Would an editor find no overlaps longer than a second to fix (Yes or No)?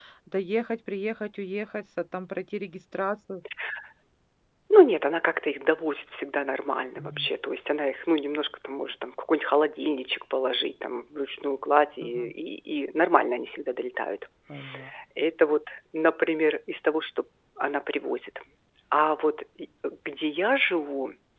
Yes